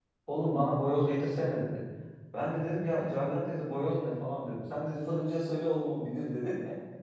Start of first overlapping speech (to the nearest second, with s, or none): none